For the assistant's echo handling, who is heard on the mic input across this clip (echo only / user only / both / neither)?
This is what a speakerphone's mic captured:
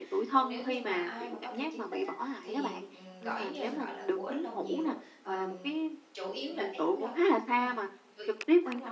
both